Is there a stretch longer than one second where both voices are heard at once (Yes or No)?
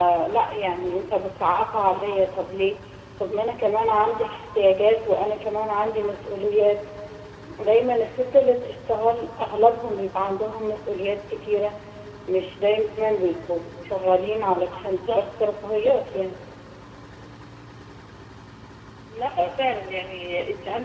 No